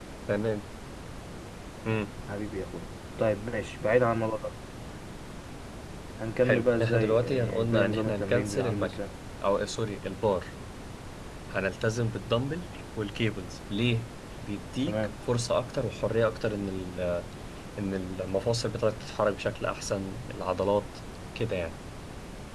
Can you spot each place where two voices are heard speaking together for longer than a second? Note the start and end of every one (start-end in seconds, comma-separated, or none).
6.4-8.9